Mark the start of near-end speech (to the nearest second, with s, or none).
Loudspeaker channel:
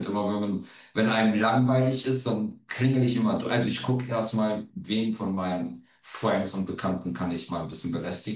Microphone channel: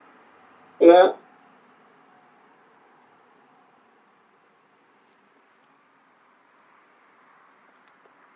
1 s